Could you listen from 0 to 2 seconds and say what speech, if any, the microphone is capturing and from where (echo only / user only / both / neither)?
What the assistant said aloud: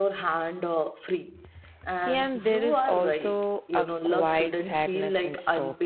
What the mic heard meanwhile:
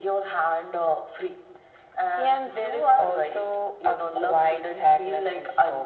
echo only